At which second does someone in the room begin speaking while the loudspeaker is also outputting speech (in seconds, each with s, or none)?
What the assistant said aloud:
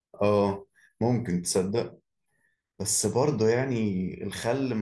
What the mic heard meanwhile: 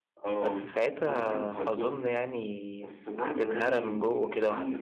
0.4 s